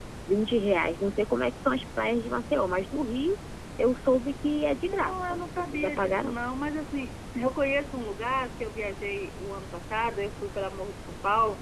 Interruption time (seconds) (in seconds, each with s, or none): 4.8 s